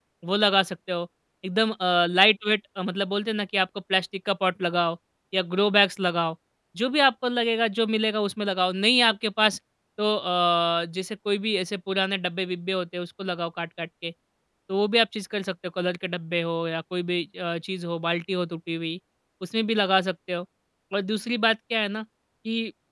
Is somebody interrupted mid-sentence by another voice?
No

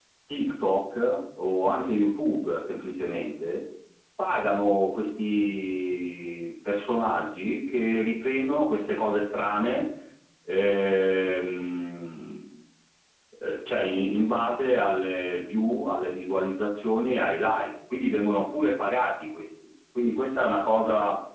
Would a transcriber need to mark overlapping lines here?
No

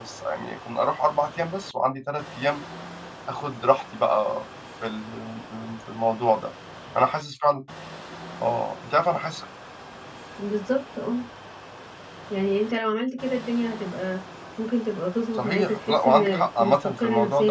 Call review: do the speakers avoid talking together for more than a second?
No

